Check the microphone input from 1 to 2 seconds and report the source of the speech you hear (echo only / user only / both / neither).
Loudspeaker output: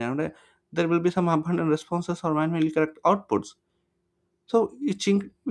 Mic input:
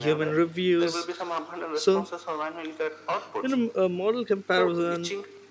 both